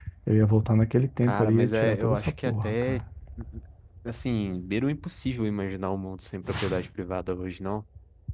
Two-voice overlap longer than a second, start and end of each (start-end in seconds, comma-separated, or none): 1.2-3.0